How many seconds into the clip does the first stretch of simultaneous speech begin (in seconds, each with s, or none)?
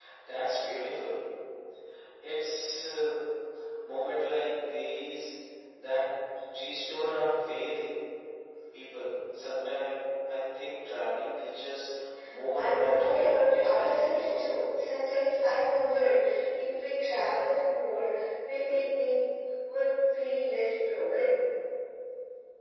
12.5 s